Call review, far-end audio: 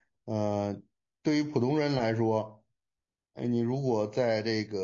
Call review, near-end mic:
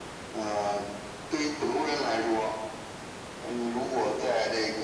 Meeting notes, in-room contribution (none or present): none